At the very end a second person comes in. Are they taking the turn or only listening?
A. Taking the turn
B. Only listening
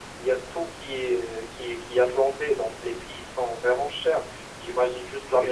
B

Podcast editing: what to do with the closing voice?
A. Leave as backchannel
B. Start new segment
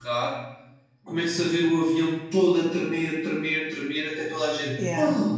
A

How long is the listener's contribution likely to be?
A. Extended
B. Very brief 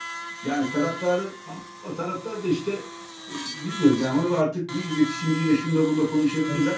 B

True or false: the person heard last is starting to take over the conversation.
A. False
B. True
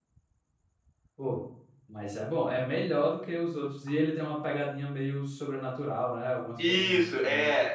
B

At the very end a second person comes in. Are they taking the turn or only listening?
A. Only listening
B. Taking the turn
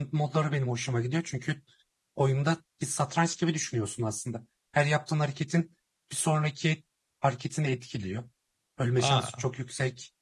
A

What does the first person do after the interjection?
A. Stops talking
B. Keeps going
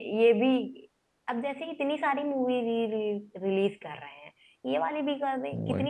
B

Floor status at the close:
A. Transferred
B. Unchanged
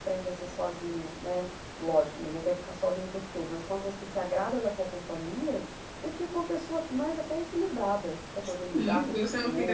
A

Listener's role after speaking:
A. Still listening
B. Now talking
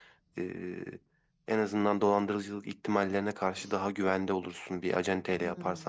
B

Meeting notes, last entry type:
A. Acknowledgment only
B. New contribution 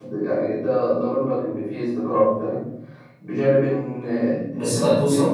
B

